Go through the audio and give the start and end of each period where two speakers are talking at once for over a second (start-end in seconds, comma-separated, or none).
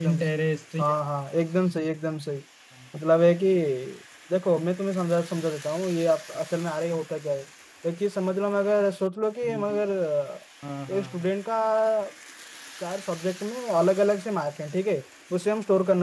none